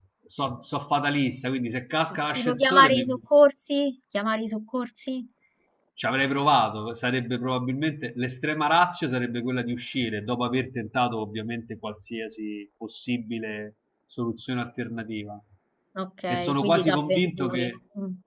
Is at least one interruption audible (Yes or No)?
Yes